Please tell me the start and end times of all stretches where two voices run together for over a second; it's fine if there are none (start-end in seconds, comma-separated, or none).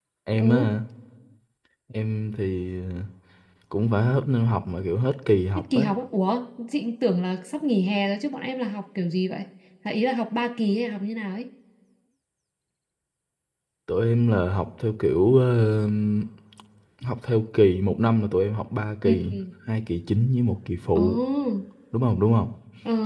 none